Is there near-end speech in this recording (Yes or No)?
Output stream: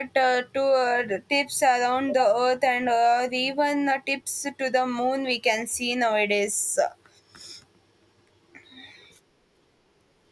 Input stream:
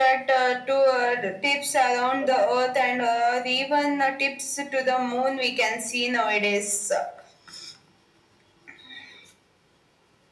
No